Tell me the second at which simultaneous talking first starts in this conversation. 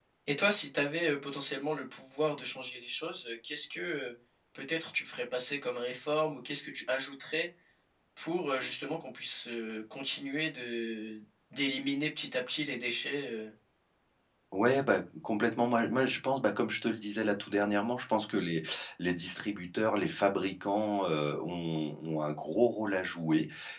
none

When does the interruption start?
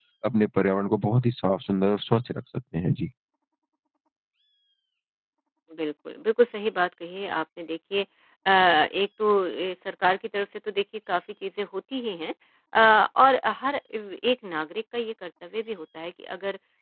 none

